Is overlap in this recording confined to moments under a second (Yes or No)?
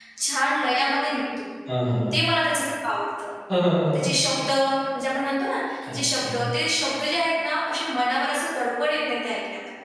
Yes